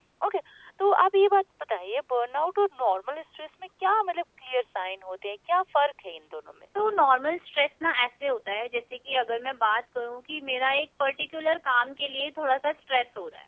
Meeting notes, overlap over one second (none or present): none